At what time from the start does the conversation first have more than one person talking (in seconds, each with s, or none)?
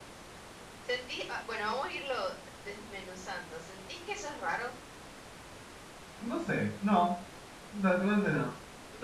none